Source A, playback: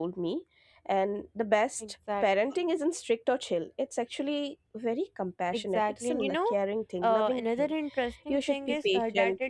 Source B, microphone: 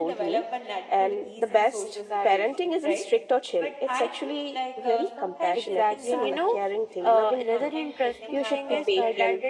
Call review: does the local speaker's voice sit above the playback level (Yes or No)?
No